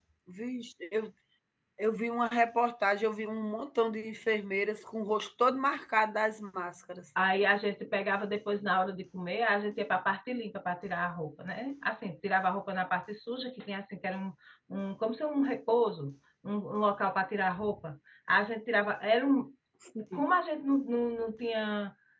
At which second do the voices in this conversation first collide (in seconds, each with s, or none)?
none